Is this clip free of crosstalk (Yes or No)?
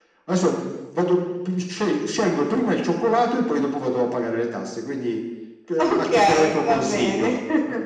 No